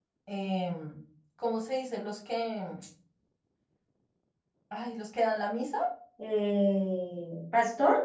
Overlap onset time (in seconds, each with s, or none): none